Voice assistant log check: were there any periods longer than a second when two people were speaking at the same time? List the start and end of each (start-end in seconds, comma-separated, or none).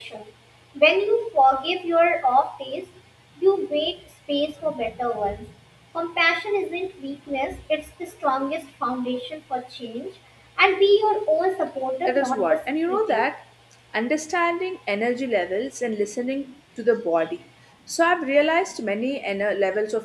12.1-13.3